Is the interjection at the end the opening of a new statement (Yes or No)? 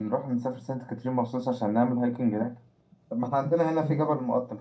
No